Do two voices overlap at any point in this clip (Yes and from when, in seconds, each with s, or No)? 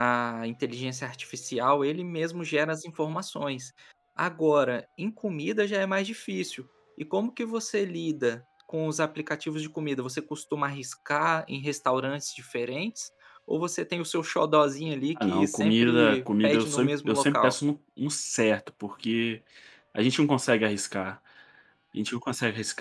Yes, from 15.2 s